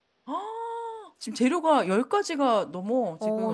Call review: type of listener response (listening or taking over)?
taking over